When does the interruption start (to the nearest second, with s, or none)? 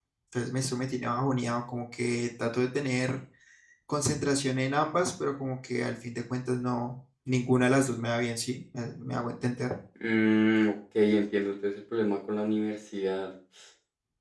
none